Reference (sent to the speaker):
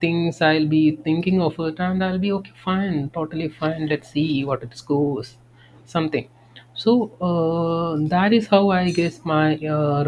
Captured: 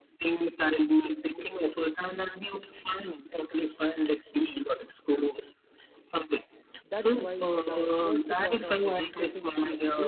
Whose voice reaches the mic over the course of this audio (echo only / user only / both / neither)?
both